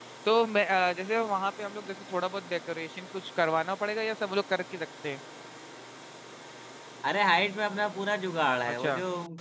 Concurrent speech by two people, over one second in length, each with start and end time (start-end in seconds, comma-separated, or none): none